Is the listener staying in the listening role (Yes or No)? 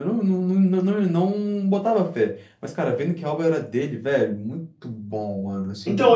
No